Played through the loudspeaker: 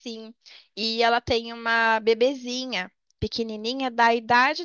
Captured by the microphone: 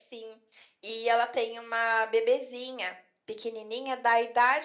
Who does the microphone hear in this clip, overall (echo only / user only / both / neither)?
echo only